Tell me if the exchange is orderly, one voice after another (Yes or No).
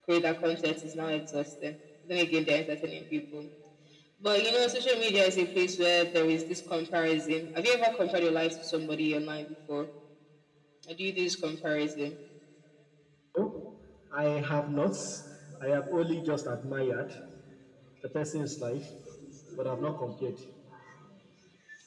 Yes